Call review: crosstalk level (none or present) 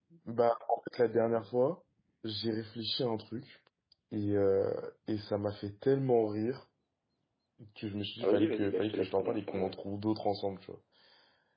present